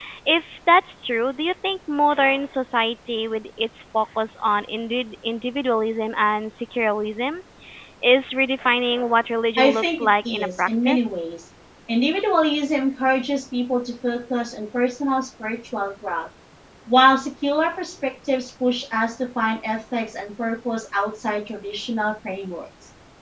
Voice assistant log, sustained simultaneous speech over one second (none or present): present